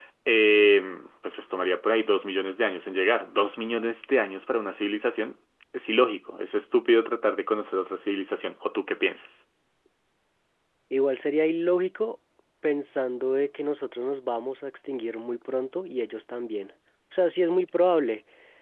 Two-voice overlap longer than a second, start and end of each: none

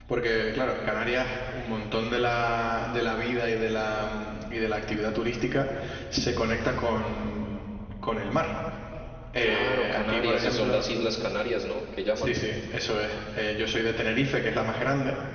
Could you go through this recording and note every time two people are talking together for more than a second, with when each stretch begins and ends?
9.4-10.8

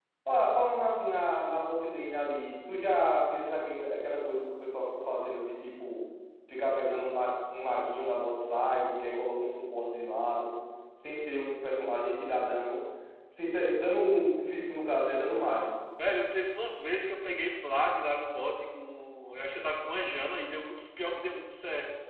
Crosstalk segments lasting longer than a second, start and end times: none

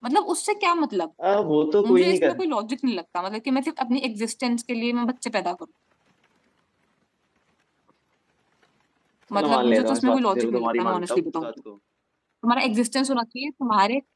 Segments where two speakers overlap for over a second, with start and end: 9.3-11.5

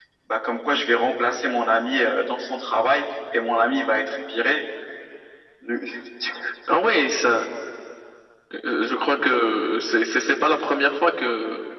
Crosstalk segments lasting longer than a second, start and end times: none

